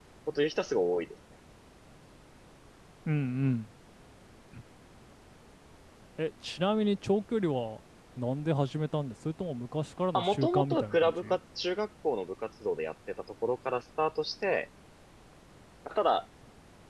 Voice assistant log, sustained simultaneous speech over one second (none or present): present